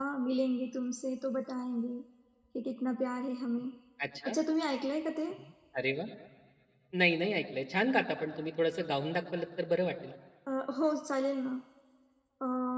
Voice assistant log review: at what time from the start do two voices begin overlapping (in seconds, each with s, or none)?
none